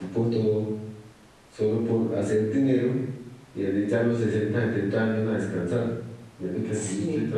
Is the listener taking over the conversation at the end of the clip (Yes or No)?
No